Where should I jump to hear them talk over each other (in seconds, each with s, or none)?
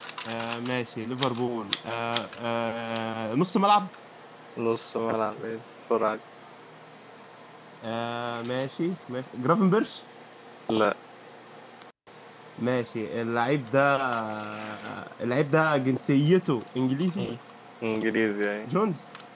none